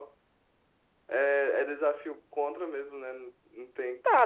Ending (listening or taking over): taking over